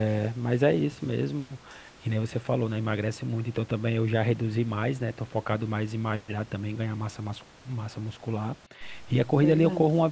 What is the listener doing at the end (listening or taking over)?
listening